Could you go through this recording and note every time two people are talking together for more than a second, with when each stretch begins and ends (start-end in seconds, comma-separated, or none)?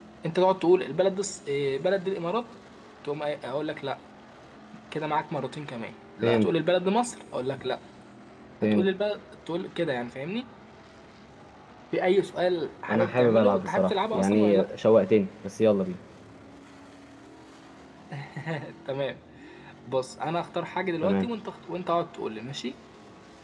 12.9-14.7